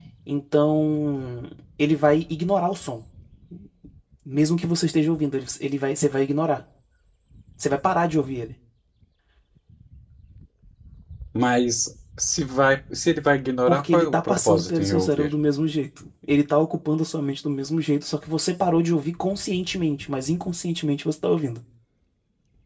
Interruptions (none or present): present